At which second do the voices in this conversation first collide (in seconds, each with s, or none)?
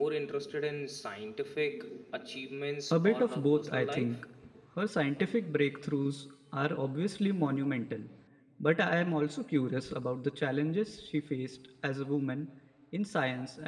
2.9 s